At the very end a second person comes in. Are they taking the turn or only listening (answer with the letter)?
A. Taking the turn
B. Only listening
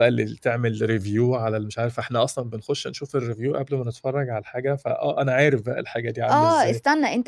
A